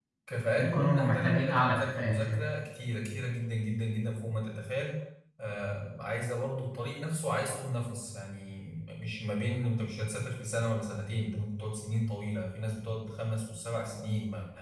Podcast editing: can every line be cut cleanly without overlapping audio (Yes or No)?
No